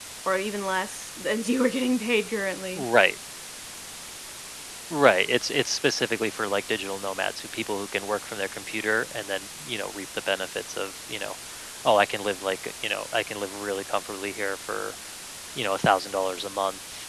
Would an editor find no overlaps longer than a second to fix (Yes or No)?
Yes